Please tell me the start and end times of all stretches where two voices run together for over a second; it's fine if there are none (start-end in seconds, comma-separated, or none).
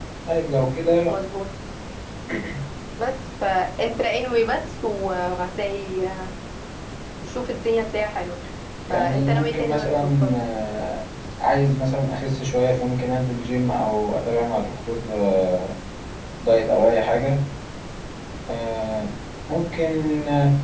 8.9-10.3